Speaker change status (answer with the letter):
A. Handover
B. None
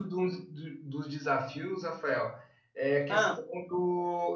B